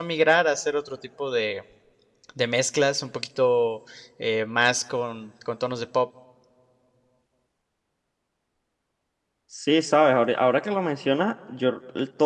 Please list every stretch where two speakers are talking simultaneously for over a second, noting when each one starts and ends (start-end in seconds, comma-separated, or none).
none